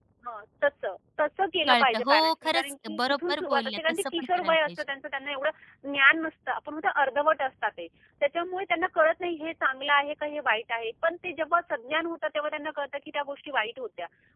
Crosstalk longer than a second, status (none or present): present